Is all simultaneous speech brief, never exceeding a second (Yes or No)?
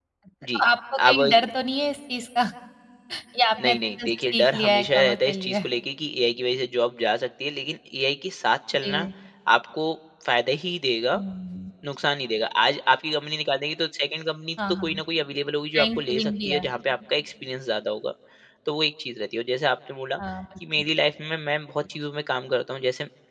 No